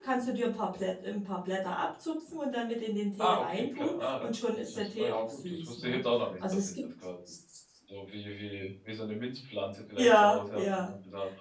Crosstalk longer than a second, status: present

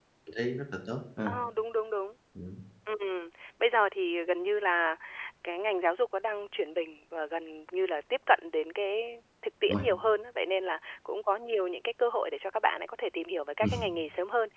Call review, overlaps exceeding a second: none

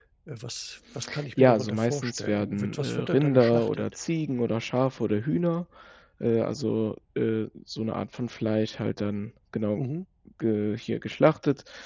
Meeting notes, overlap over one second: present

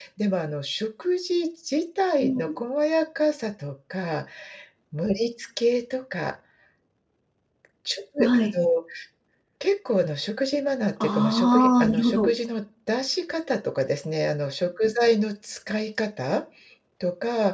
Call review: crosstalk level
present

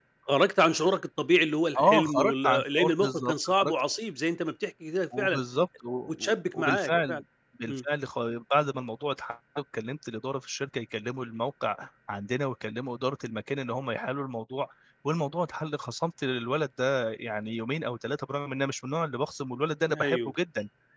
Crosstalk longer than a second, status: present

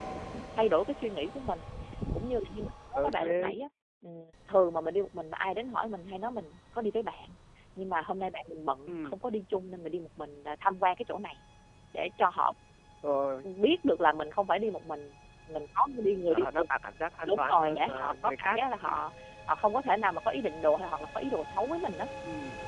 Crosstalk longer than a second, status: present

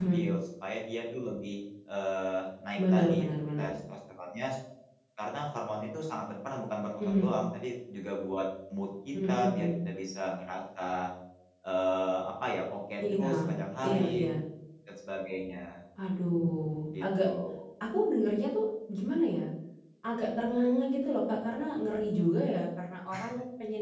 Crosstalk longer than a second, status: none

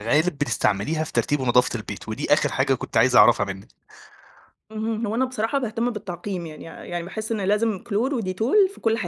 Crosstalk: none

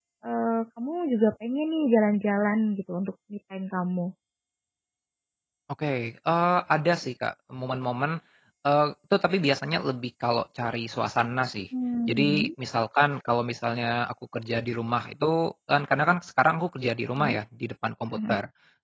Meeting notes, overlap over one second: none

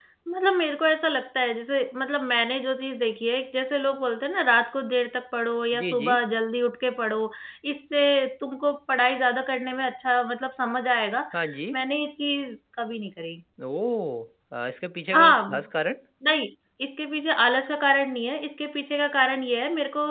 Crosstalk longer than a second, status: none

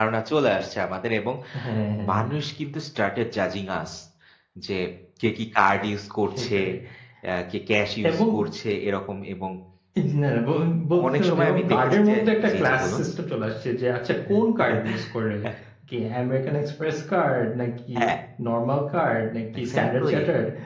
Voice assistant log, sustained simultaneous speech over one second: present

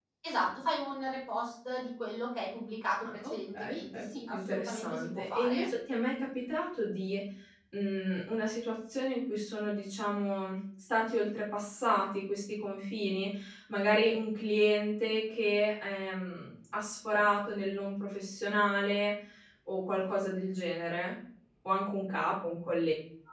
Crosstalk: present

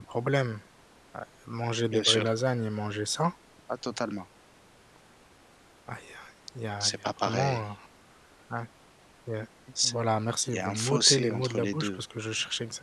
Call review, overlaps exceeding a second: present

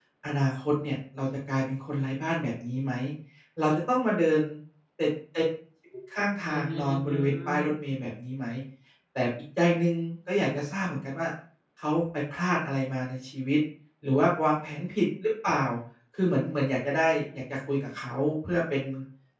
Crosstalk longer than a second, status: present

